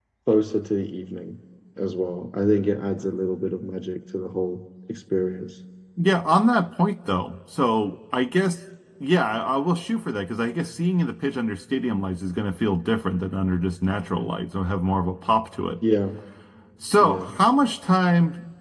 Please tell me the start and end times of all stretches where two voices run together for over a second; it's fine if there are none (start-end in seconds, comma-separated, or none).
none